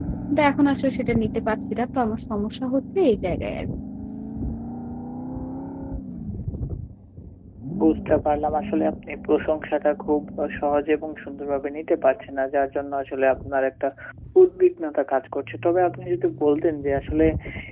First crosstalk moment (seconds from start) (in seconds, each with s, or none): none